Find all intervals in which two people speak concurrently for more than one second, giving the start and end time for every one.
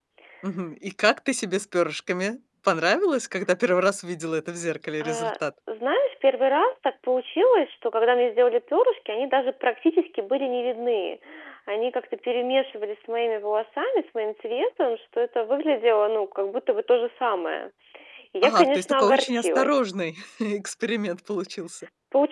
18.4-19.8

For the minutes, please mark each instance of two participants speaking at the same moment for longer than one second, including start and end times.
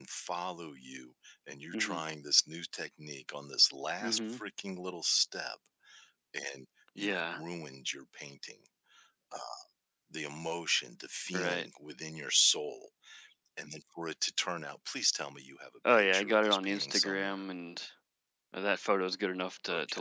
15.9-17.4

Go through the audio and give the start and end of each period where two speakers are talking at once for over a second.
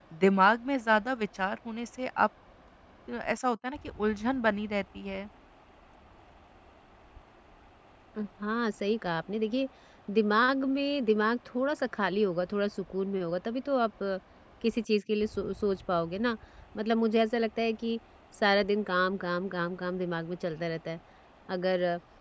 none

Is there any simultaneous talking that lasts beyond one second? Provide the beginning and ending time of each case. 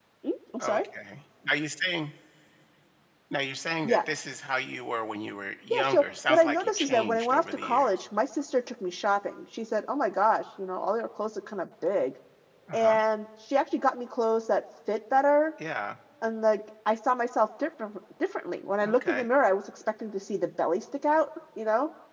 5.7-7.9

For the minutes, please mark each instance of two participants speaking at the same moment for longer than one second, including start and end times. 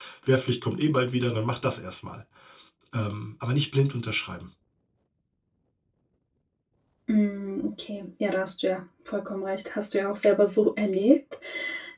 none

